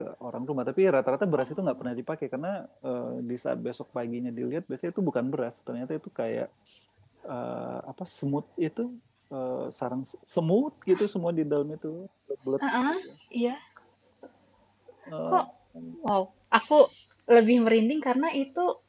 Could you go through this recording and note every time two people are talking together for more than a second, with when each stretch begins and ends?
none

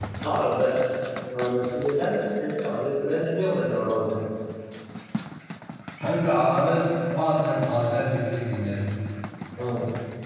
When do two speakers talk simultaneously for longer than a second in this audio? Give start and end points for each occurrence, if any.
none

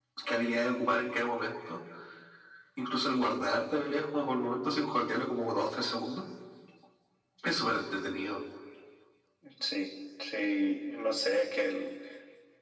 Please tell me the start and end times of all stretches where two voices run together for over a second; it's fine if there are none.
none

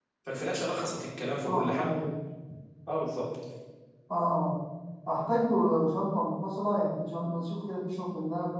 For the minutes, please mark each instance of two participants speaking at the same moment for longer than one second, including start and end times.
none

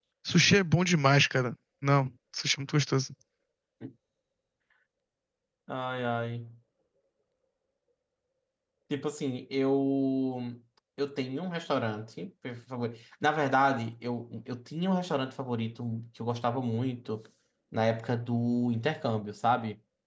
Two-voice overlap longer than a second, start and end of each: none

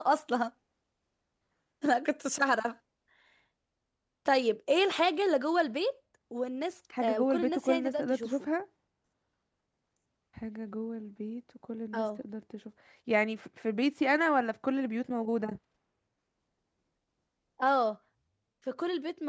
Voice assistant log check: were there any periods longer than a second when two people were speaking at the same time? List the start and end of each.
7.0-8.3

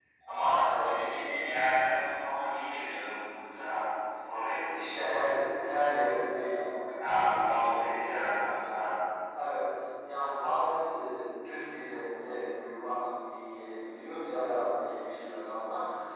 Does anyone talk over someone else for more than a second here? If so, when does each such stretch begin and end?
none

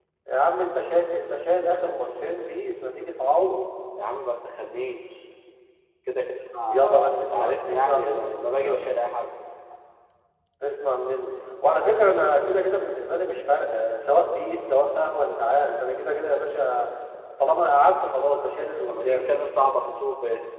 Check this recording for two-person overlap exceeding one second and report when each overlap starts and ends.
6.7-8.9

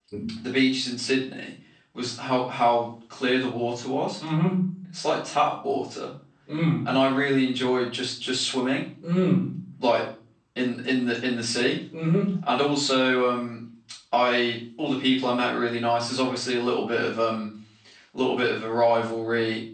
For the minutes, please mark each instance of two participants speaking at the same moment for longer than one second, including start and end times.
none

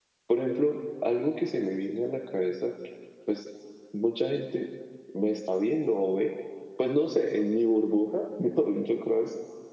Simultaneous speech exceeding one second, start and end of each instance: none

